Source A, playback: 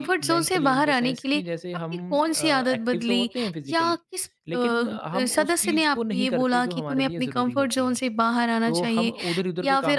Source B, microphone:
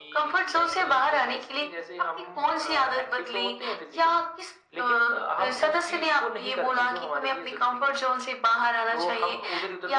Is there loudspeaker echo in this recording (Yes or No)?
Yes